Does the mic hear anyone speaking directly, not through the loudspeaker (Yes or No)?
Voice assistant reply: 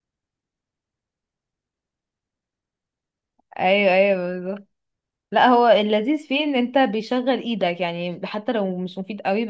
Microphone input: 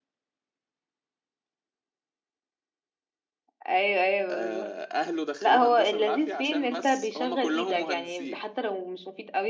Yes